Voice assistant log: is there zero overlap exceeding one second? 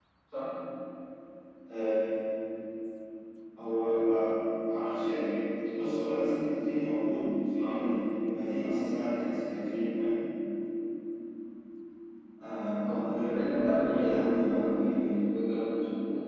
No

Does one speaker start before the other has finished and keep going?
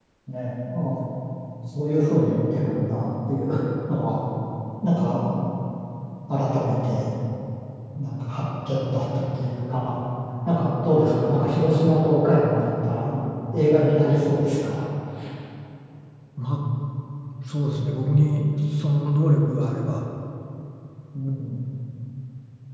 No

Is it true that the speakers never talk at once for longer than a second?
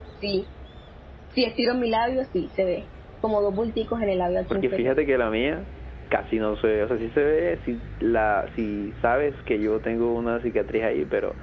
Yes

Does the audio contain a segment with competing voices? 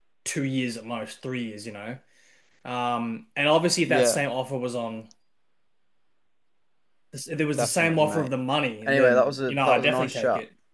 Yes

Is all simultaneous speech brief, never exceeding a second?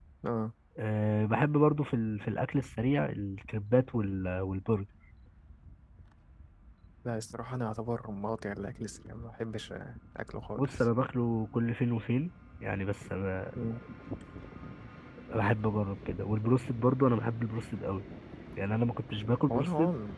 Yes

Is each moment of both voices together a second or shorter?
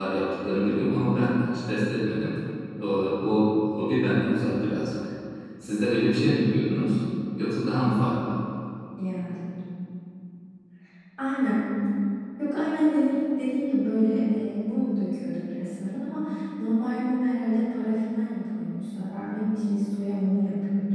Yes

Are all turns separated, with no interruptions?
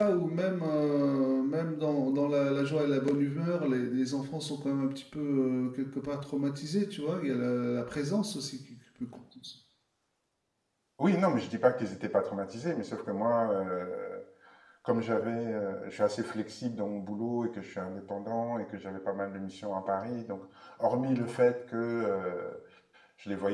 Yes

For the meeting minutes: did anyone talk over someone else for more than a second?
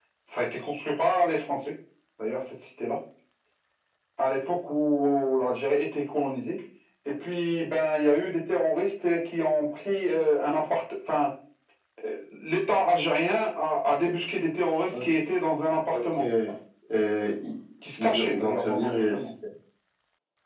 Yes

